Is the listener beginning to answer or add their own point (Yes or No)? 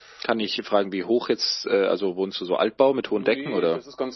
Yes